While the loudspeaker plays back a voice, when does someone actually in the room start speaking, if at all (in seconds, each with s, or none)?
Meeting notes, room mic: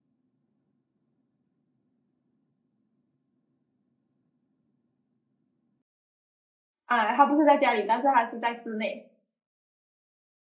6.8 s